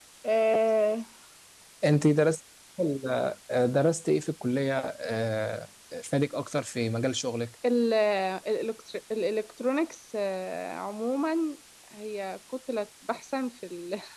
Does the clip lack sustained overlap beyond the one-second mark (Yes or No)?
Yes